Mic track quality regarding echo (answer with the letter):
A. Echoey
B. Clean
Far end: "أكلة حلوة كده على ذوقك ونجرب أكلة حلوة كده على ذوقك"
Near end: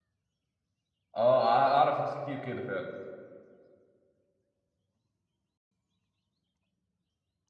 B